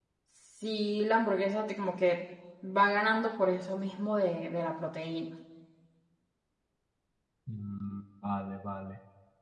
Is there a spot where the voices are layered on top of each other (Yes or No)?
No